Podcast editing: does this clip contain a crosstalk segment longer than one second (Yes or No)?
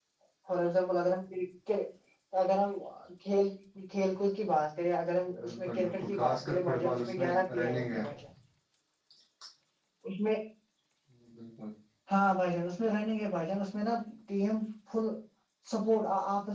Yes